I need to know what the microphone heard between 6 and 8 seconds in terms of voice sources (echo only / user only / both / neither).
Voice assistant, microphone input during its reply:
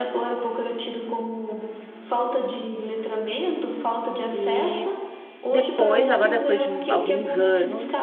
both